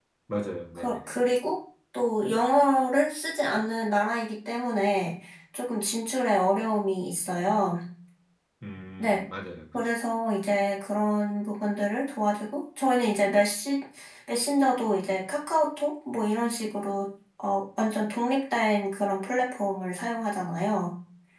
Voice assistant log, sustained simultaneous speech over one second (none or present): none